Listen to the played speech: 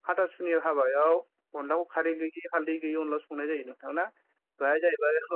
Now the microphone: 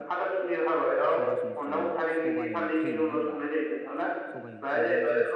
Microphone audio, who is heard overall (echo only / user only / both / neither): both